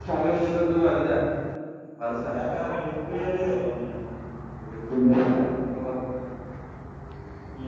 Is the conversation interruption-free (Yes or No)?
Yes